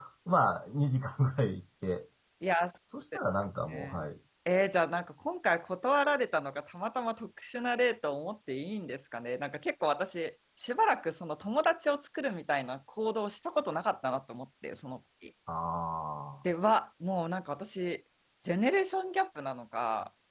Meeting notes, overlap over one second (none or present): none